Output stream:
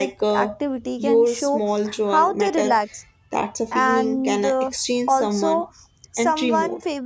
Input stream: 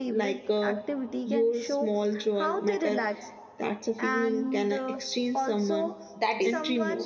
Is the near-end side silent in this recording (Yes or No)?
No